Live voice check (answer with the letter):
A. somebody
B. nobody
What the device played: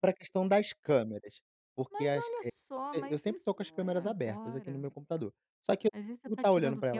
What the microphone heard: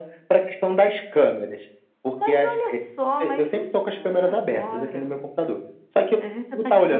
B